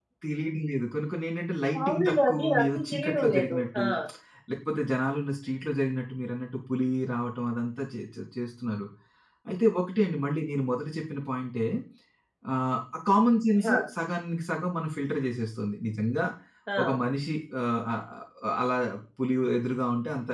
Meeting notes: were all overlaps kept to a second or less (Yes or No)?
No